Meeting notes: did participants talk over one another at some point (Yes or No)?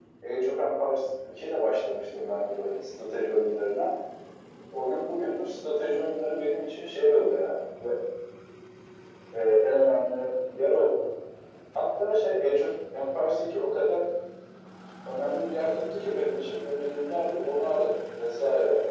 No